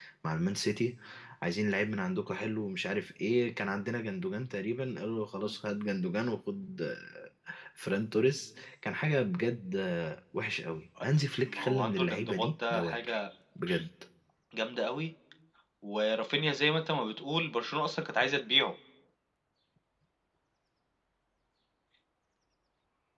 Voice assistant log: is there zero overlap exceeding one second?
No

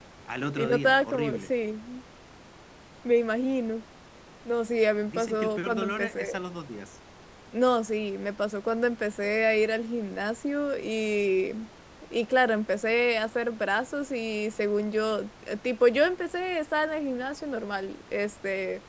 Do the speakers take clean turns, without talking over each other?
No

